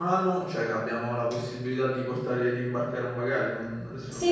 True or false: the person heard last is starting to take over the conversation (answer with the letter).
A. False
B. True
B